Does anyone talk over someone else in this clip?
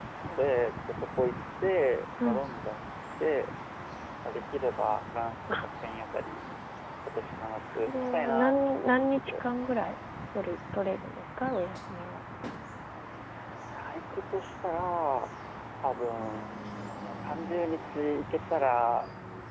Yes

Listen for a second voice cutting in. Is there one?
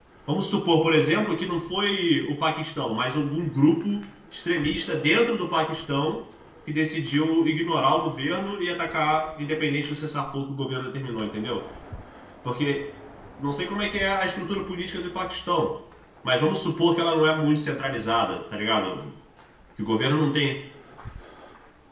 No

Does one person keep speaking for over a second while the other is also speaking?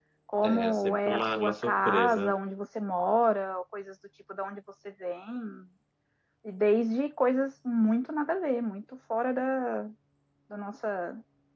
Yes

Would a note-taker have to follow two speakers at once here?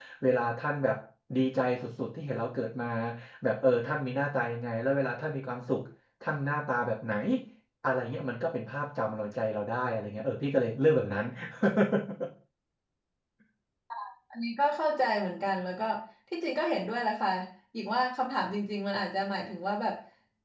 No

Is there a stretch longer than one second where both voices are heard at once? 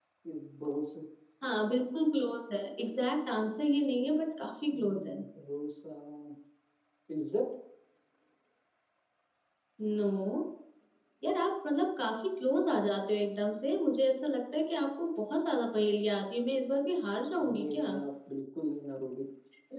No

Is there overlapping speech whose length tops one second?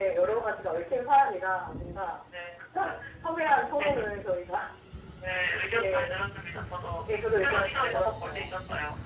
Yes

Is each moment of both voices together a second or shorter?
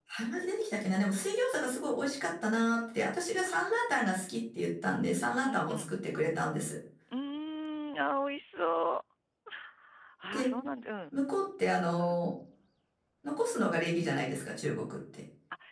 Yes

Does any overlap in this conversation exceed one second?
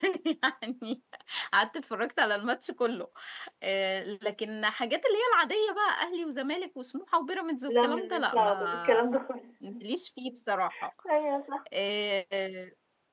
Yes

